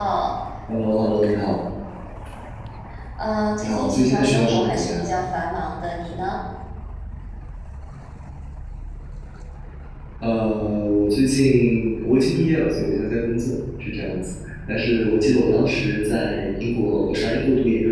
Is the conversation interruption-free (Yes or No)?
No